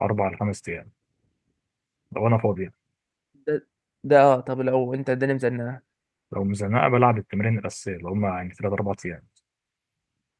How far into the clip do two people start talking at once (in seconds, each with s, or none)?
none